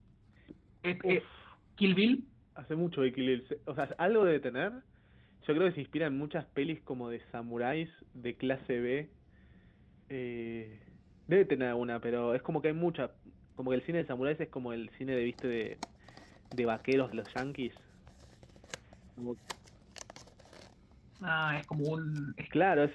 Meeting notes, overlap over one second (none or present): none